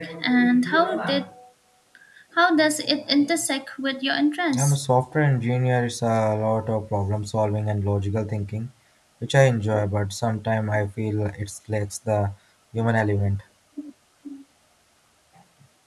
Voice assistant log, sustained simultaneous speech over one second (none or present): none